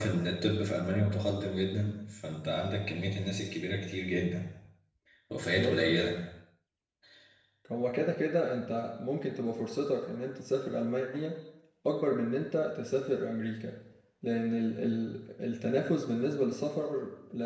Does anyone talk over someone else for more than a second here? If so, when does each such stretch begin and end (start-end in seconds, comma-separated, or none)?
none